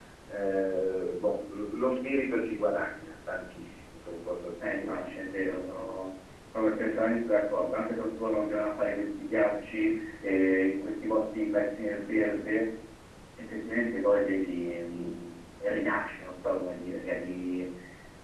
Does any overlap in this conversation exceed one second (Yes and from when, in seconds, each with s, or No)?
No